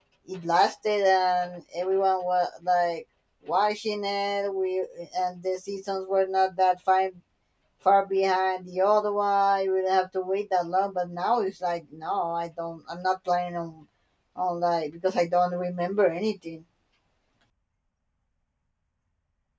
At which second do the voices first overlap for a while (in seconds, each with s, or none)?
none